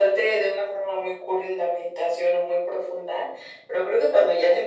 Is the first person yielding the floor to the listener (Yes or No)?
No